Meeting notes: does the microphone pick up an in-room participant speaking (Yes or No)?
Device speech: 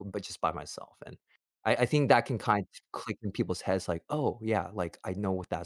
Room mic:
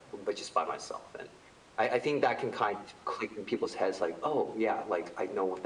No